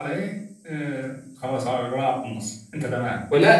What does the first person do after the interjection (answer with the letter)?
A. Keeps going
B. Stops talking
B